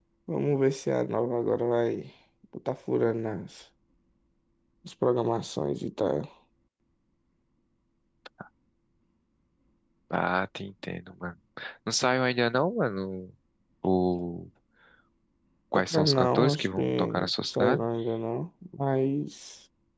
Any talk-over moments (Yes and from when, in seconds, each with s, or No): Yes, from 15.8 s